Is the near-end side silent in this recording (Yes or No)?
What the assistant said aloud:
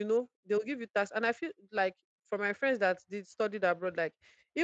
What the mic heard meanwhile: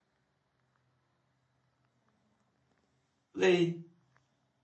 No